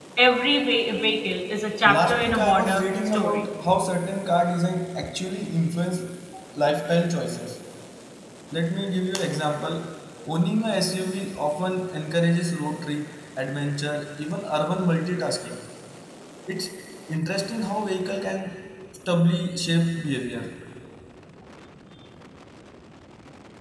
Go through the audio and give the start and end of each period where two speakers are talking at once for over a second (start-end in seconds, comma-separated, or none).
1.8-3.5